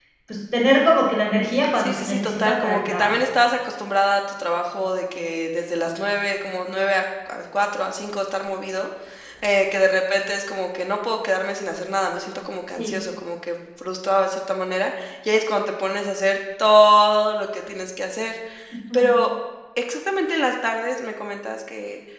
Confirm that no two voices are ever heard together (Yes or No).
No